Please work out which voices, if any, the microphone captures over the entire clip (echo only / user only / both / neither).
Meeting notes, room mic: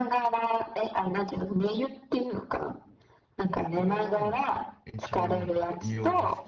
both